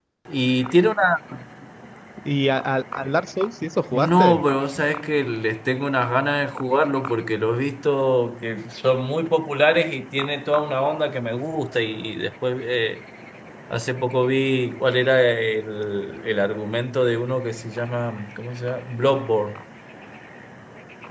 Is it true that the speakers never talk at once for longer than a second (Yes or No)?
Yes